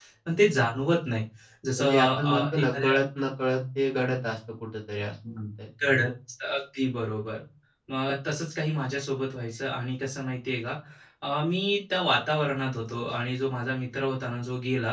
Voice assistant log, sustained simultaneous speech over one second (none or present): present